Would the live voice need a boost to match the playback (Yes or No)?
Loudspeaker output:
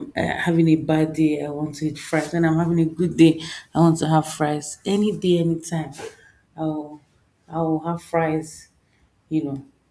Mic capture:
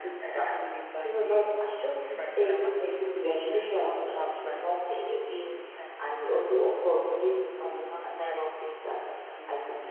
No